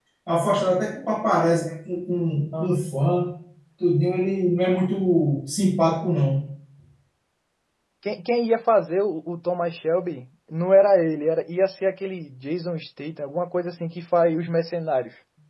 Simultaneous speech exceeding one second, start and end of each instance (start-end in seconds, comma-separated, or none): none